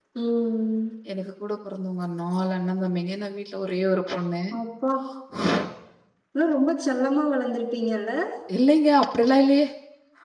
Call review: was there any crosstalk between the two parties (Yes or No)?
No